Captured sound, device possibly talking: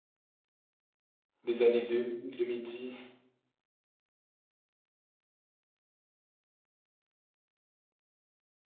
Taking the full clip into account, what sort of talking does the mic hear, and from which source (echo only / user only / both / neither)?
user only